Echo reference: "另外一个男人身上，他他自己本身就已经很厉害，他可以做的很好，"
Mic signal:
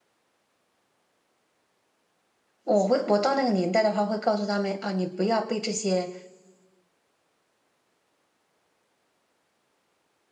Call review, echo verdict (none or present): none